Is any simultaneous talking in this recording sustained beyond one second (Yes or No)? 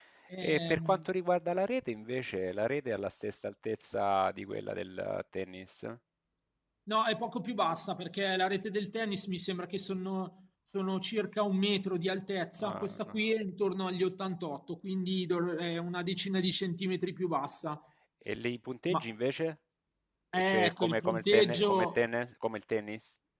Yes